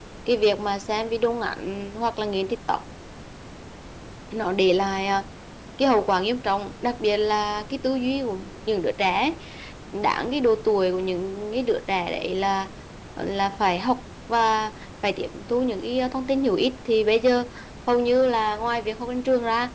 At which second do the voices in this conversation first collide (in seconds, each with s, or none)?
none